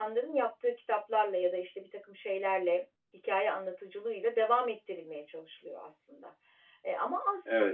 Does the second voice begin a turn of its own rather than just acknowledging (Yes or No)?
No